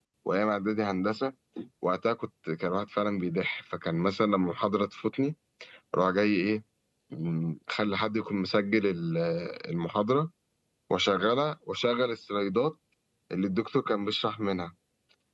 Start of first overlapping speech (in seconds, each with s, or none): none